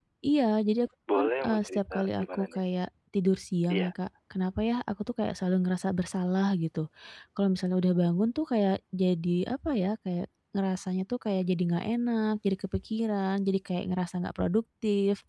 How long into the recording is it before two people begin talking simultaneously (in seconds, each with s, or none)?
1.1 s